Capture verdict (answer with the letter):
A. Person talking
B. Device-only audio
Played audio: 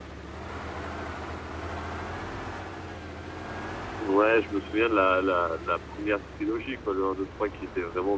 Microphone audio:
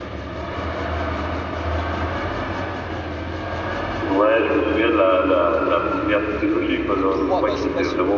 A